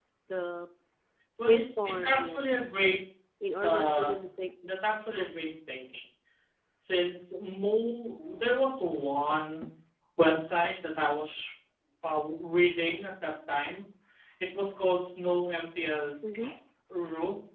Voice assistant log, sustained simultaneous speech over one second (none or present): present